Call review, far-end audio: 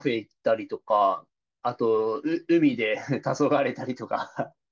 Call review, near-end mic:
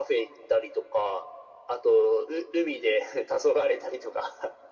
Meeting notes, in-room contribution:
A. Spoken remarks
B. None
B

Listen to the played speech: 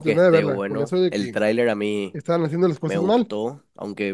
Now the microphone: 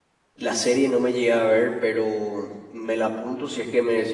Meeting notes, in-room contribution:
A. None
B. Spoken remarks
B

